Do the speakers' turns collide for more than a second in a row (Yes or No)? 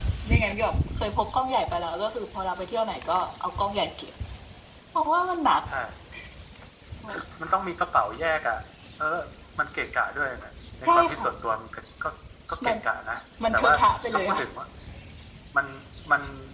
No